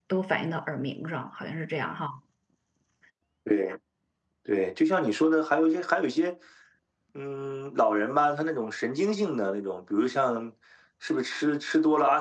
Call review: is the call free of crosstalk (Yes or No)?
Yes